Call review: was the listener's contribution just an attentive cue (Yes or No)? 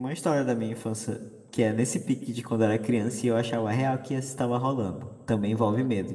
Yes